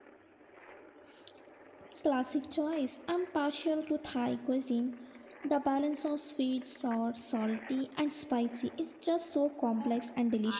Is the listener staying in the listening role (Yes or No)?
No